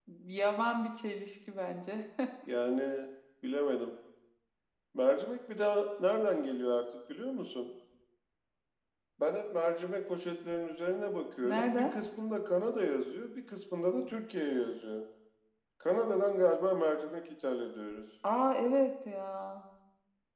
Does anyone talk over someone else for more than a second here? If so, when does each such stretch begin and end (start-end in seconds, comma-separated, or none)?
none